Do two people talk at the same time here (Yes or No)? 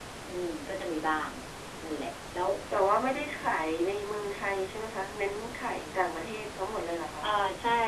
No